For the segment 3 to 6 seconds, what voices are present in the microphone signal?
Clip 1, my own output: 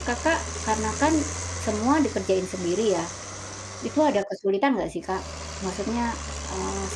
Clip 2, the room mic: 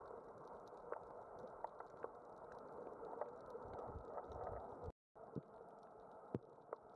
neither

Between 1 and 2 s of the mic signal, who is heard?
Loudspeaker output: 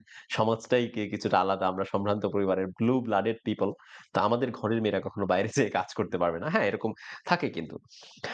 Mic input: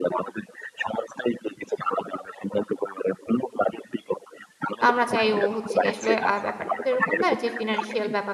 echo only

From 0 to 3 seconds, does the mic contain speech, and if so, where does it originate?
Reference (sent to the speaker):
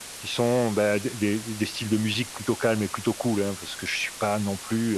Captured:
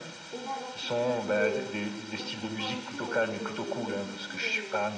both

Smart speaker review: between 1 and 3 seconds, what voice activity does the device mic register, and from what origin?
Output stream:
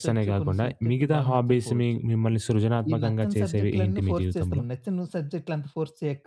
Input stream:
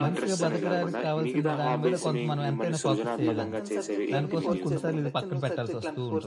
both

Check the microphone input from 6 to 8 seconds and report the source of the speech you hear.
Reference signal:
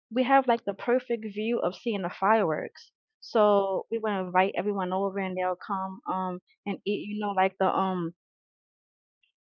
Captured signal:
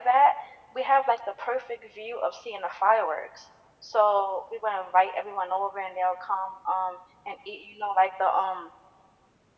echo only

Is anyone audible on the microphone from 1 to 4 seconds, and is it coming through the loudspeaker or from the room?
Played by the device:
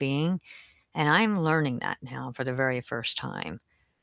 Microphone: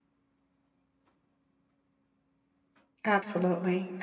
user only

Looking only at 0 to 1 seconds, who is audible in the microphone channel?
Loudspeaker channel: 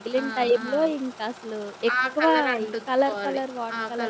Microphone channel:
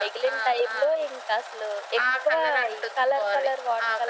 echo only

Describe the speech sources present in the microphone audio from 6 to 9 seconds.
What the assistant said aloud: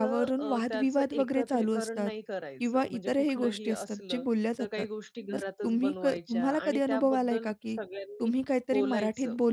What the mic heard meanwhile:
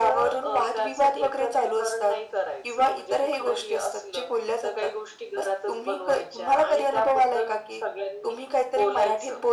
echo only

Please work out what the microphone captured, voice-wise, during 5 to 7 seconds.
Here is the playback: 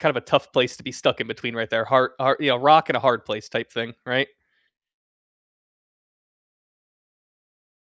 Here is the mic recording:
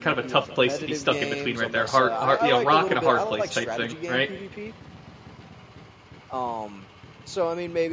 user only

